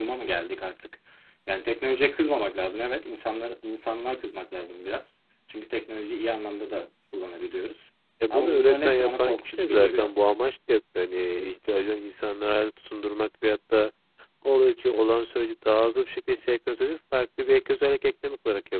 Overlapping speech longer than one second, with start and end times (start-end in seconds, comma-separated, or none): 8.3-10.1